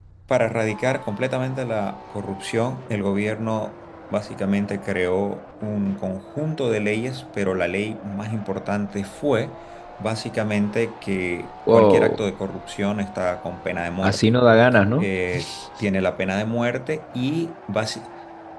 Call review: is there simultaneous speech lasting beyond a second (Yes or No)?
No